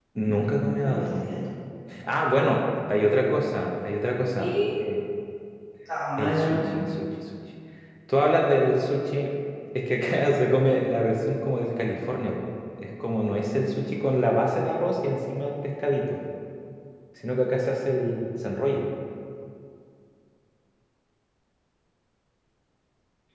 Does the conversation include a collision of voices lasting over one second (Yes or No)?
No